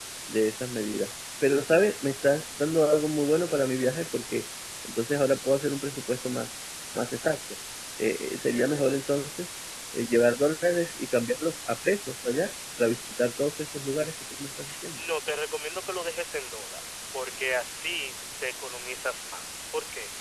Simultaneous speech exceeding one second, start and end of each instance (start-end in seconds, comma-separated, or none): none